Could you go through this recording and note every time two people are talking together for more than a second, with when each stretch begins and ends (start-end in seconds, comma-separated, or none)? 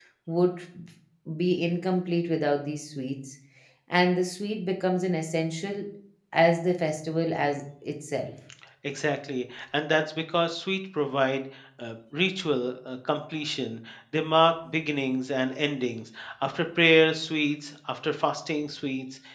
none